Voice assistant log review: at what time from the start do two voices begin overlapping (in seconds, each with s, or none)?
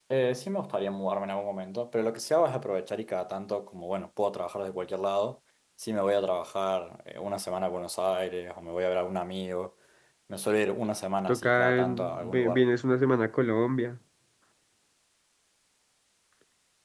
11.3 s